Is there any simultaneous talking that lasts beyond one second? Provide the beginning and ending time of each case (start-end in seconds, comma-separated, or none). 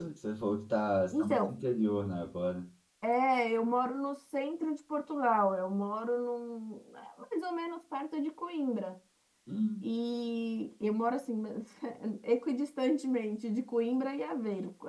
none